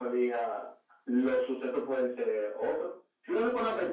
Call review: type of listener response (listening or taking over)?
listening